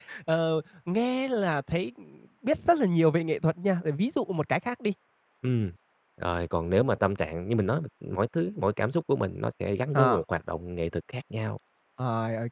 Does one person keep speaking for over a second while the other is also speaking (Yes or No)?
No